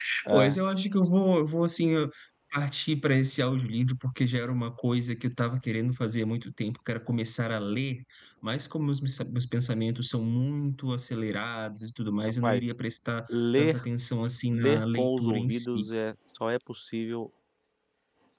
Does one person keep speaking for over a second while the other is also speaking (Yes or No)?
Yes